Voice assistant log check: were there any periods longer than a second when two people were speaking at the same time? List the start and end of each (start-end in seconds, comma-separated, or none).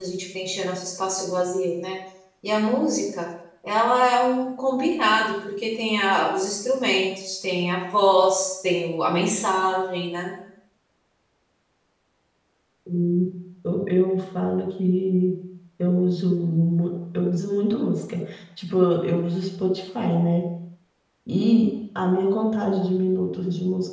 none